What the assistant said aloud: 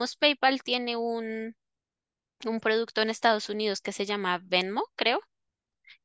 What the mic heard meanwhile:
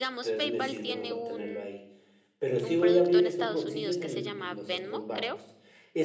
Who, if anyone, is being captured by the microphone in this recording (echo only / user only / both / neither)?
both